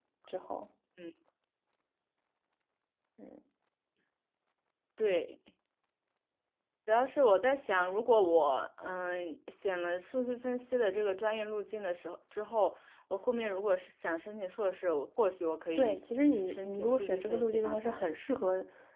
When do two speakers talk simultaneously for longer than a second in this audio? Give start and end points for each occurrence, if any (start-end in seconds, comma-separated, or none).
16.5-18.1